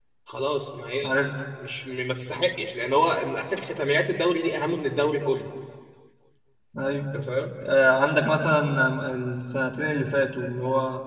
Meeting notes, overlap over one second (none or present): none